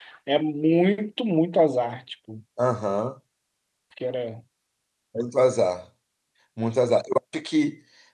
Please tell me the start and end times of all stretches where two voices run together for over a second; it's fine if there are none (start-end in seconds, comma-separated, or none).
none